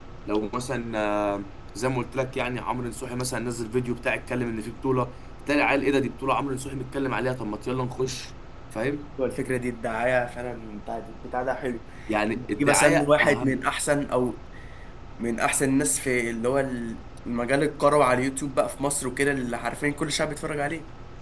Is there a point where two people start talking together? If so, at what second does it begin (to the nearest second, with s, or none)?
12 s